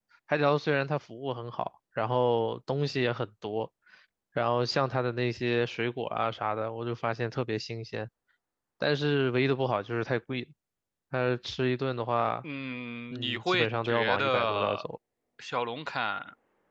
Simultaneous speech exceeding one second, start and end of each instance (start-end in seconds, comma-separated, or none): 13.1-14.9